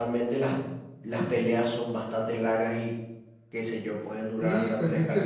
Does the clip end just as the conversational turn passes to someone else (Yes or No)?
Yes